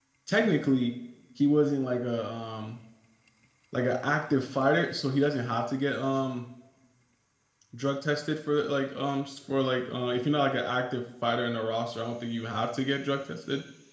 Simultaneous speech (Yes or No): No